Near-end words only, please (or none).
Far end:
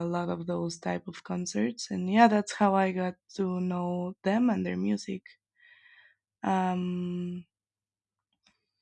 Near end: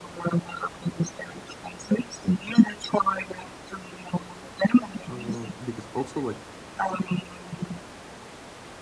uh, because also like